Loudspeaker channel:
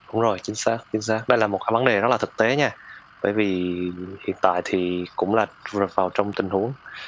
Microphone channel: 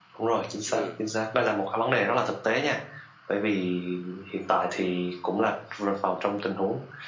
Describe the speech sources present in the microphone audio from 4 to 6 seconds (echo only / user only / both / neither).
echo only